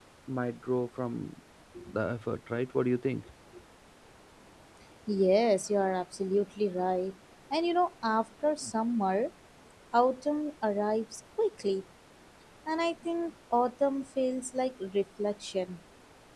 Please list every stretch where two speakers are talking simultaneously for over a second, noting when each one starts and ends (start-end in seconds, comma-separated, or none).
none